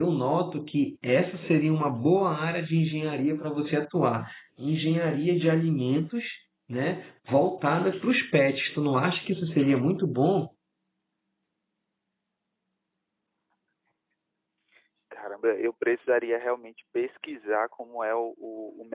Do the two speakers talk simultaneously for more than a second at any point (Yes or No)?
No